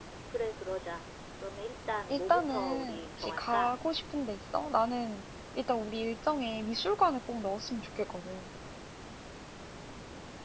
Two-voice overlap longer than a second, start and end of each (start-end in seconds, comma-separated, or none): 2.1-3.8